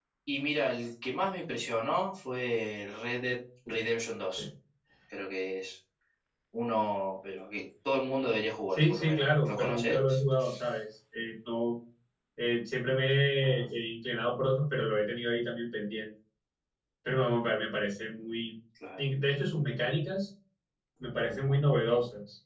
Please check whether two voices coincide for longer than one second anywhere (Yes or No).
Yes